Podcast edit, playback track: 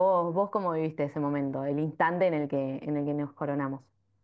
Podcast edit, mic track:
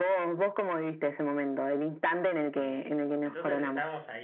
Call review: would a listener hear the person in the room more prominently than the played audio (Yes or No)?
No